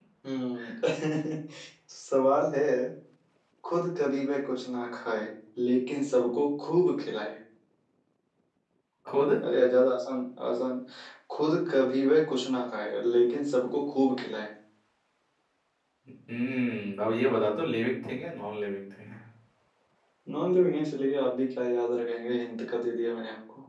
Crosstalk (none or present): none